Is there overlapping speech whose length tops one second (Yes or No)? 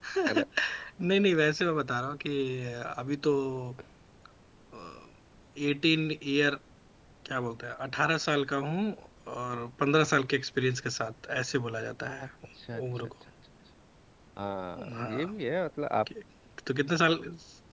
No